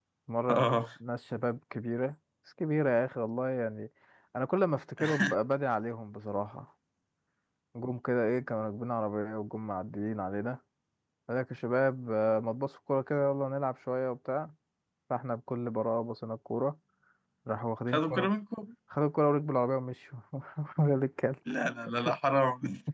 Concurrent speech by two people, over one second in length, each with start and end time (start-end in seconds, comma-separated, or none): none